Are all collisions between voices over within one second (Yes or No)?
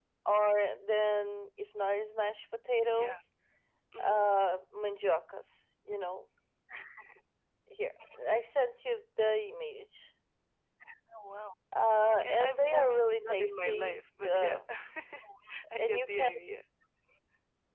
No